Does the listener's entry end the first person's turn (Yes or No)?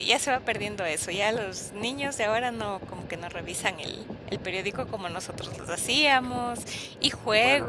Yes